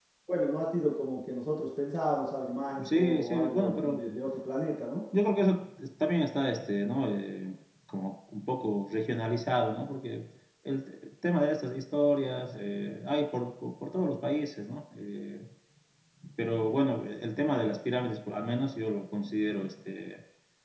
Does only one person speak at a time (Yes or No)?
No